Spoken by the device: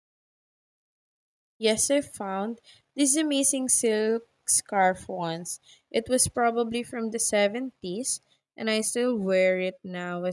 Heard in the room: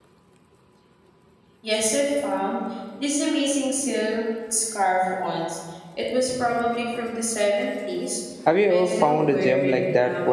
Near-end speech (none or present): present